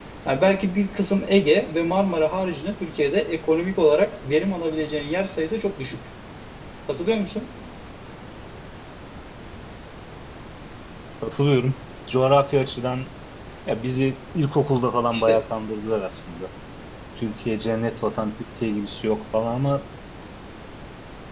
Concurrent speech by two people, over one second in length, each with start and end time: none

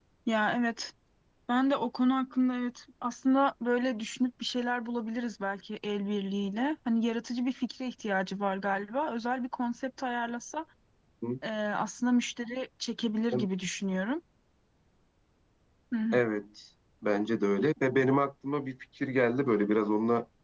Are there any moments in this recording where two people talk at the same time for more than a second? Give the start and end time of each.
none

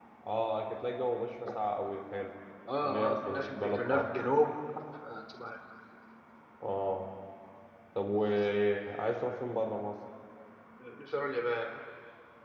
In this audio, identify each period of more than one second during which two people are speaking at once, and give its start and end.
2.8-4.0

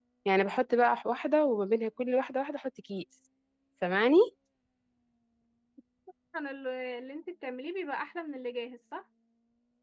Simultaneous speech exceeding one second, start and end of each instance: none

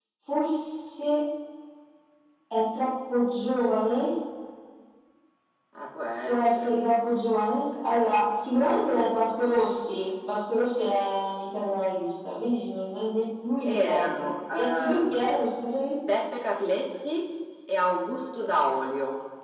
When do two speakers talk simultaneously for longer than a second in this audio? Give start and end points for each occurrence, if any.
13.7-15.3

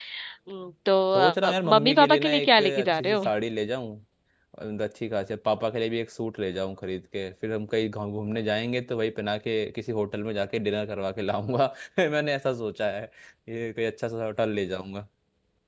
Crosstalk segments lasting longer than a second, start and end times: 1.1-3.2

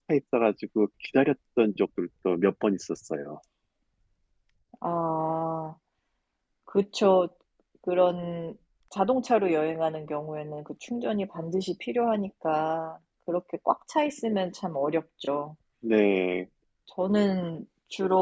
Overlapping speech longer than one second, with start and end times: none

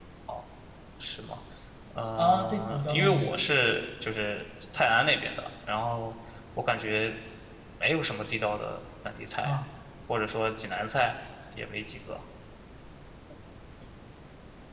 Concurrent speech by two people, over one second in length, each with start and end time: 2.2-3.5

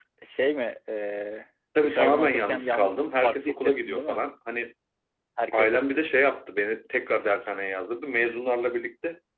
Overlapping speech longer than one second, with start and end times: 1.8-4.2

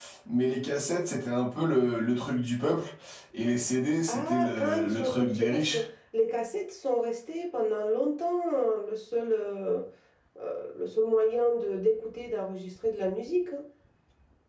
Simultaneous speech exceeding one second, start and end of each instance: 4.1-5.8

